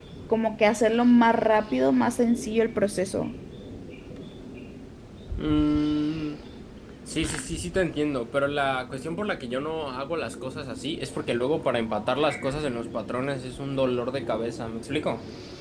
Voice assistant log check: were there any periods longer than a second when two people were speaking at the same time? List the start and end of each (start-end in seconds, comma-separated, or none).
none